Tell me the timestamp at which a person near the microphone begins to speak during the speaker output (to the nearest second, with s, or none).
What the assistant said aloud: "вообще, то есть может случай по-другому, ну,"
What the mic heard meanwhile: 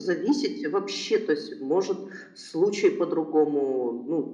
none